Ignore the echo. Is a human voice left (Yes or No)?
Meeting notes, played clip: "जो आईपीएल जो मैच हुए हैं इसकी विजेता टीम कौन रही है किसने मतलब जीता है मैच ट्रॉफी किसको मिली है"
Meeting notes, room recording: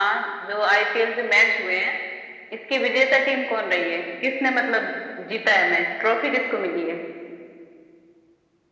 No